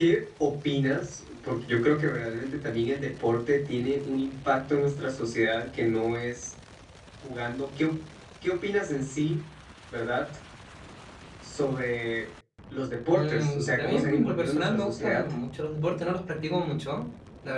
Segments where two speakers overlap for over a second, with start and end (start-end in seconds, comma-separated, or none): 13.1-15.2